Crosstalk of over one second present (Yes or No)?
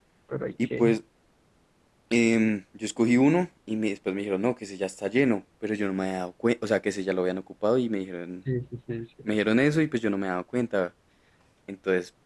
No